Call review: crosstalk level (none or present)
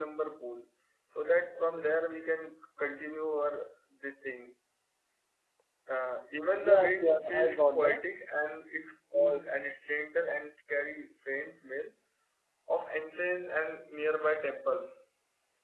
present